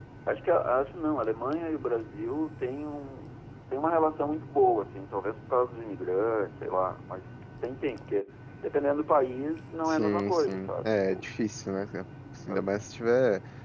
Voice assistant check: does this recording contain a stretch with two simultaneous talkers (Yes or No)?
Yes